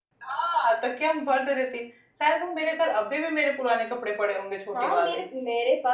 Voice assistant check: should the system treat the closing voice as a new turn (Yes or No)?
Yes